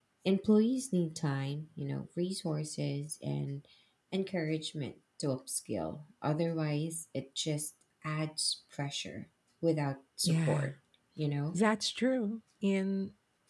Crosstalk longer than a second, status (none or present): none